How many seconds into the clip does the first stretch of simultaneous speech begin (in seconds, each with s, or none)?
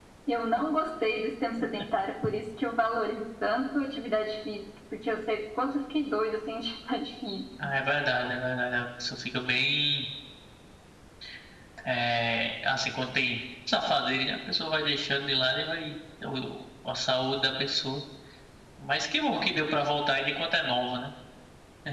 none